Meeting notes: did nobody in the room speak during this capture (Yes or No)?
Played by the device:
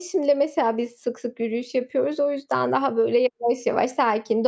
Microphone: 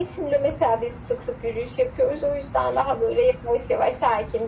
Yes